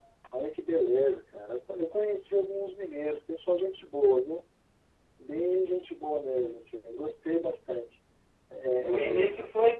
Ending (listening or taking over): taking over